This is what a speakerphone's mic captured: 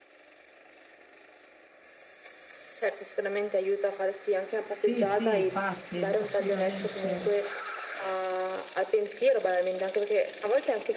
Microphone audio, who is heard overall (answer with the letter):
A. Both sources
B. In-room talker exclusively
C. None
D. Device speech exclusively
A